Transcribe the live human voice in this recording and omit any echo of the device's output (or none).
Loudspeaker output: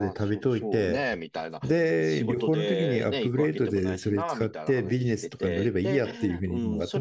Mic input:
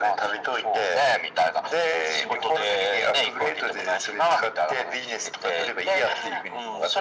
none